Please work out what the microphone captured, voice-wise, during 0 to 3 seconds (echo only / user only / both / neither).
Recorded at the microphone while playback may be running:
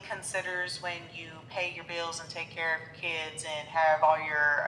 echo only